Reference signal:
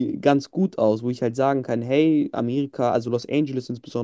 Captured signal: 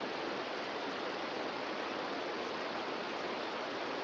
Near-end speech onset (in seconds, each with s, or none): none